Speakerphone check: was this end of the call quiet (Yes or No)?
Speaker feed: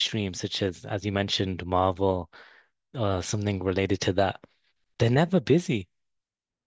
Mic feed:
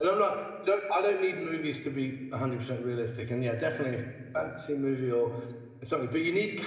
No